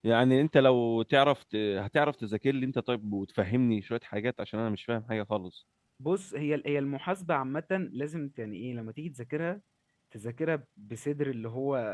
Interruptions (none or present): none